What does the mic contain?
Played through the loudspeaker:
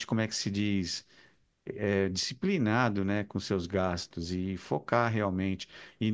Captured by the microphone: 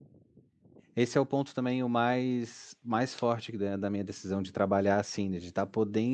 user only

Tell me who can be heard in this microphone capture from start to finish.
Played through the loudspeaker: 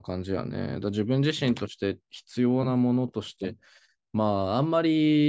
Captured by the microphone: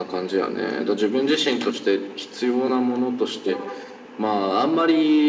echo only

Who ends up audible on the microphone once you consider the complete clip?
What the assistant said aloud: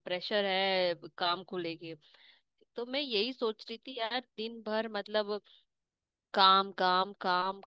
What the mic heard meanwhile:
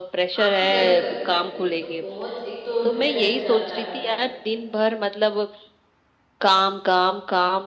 both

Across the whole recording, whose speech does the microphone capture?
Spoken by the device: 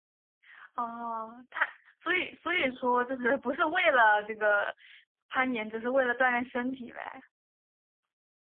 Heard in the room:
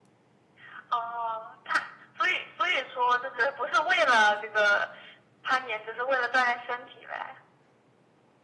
echo only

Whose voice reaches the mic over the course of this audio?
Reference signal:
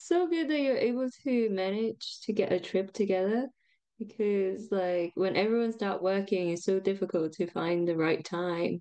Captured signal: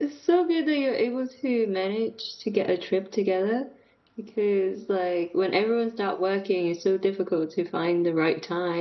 echo only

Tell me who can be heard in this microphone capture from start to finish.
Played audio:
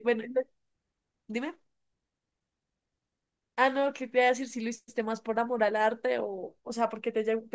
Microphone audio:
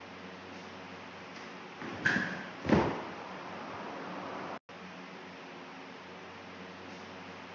neither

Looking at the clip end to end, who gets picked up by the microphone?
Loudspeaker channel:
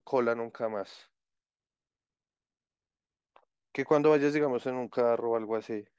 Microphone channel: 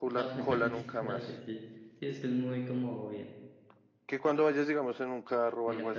both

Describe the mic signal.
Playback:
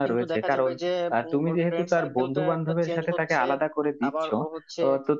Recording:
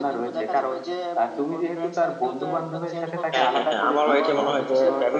both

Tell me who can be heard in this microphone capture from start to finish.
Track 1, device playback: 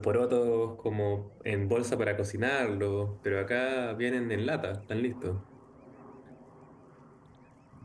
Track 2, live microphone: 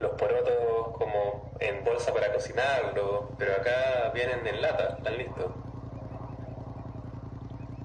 echo only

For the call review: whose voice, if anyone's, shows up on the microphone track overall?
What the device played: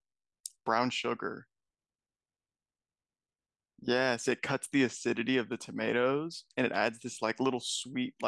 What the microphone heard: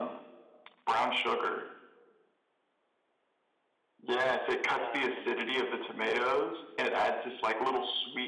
both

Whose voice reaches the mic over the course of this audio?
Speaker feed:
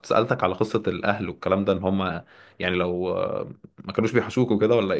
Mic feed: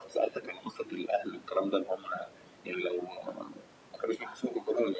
echo only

